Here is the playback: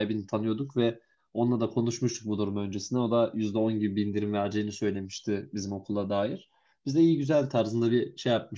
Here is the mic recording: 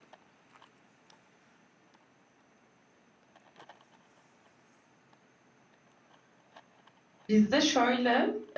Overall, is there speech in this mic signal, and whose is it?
user only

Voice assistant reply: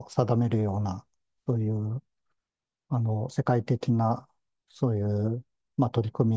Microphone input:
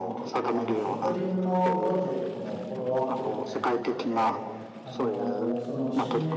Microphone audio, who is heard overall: both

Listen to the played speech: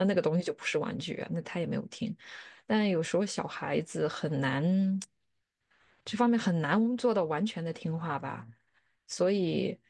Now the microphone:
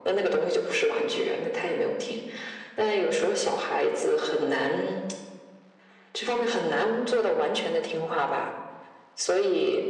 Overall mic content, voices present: echo only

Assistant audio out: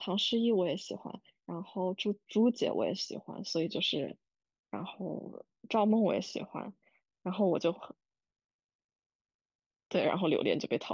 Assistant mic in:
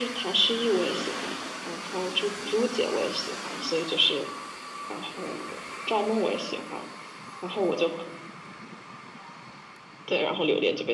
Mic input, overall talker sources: echo only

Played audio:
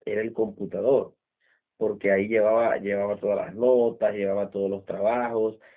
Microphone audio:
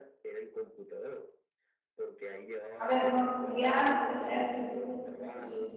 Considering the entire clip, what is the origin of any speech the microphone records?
both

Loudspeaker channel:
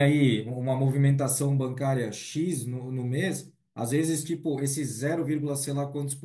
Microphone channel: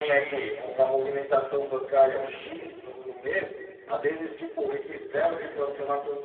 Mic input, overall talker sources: echo only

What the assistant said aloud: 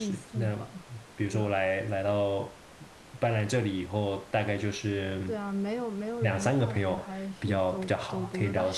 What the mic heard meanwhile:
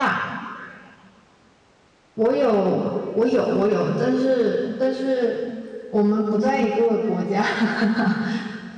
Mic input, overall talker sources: user only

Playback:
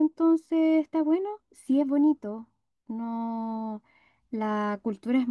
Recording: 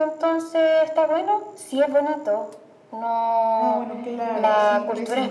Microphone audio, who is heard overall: both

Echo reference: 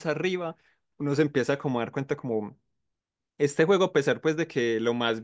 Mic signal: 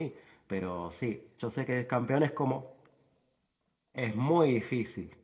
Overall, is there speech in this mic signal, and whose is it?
user only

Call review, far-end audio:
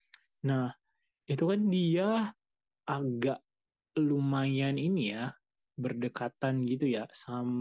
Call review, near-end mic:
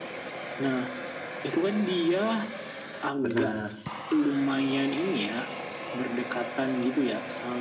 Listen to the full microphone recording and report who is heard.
both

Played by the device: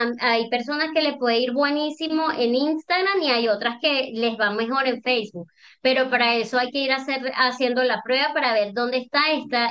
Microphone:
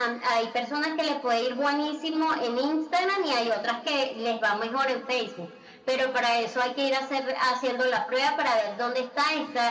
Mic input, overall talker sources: echo only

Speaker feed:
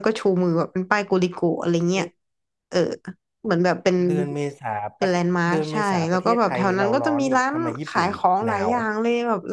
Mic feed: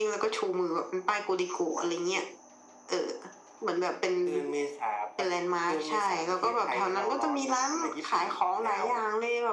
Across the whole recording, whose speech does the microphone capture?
echo only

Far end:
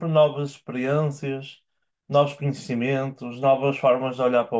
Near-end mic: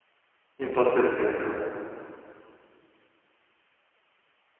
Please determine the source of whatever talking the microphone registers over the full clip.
user only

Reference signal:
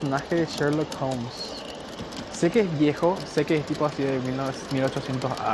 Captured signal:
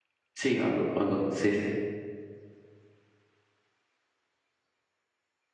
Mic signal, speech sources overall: user only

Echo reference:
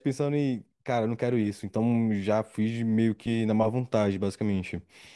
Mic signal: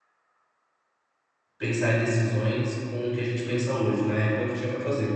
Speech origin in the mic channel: user only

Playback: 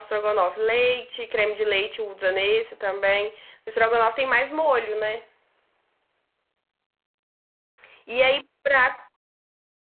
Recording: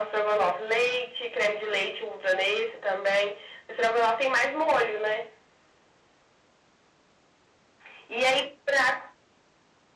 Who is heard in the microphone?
echo only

